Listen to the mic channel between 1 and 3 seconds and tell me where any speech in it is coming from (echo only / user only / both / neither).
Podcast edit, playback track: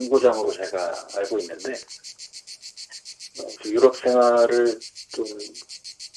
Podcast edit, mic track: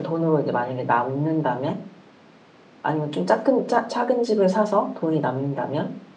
user only